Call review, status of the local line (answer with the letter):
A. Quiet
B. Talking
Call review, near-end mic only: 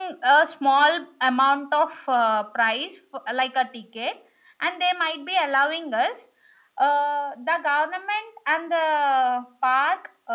A